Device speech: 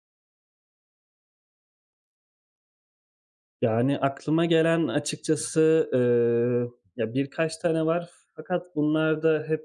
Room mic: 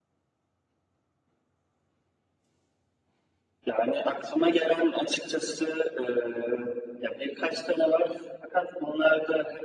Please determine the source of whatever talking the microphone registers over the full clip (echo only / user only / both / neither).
echo only